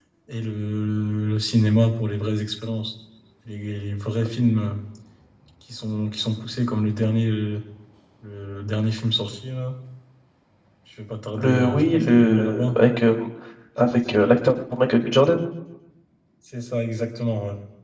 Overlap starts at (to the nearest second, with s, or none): 11 s